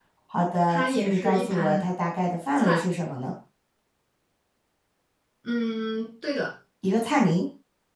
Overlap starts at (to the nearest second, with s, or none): 1 s